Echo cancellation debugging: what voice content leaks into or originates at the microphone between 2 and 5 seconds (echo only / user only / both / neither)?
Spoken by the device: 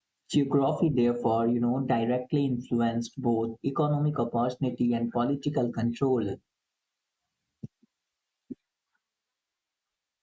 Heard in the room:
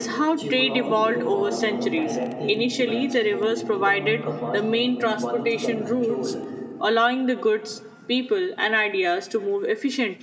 both